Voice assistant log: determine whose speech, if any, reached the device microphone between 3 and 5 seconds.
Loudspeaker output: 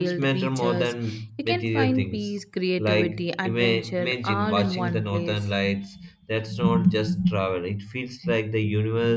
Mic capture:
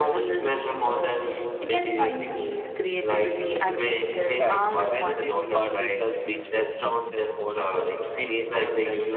both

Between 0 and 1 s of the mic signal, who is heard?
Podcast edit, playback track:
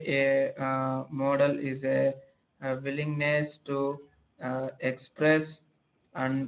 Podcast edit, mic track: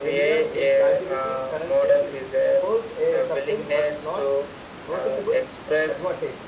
both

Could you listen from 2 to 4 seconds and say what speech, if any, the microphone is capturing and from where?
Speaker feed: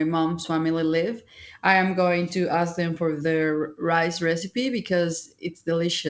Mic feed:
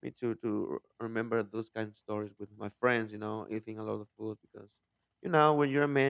user only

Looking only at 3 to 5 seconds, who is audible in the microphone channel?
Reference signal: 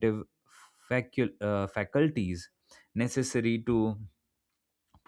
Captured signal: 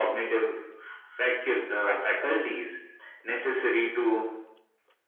echo only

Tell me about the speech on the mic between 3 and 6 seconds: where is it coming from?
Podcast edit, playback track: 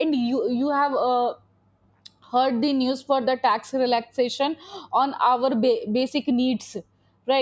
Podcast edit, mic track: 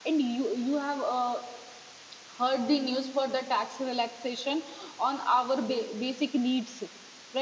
echo only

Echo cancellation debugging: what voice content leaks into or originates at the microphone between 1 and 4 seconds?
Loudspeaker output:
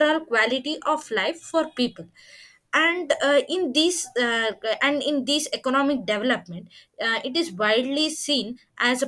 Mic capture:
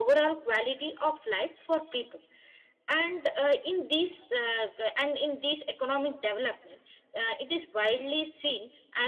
echo only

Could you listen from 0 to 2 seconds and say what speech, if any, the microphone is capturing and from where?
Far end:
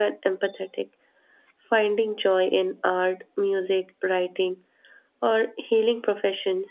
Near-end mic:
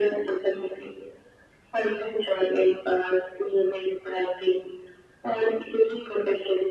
echo only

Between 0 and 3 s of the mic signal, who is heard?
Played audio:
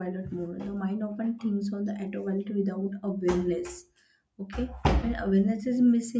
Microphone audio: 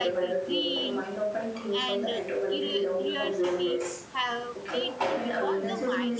both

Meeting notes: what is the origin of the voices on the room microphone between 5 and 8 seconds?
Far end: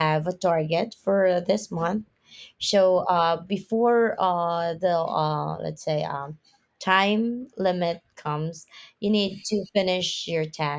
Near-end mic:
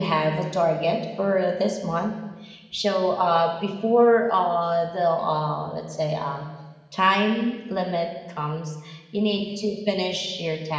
echo only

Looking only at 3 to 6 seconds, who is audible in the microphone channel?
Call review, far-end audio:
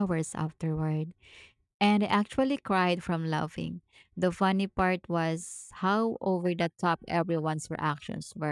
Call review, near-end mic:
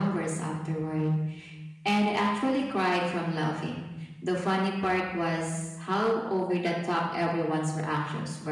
echo only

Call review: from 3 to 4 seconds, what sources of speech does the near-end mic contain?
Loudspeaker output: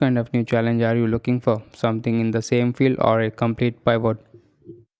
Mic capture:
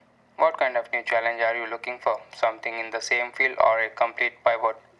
echo only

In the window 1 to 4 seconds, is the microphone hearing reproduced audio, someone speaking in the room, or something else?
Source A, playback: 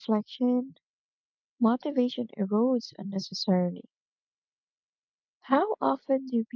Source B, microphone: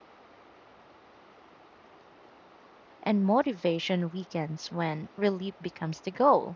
user only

